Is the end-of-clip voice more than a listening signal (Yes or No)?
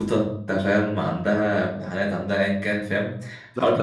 Yes